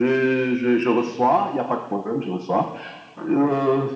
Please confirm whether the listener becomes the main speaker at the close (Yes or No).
No